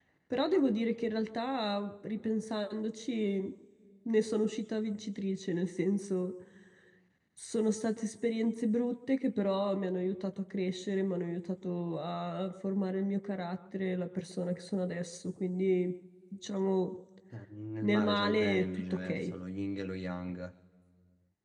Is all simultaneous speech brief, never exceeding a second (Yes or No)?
No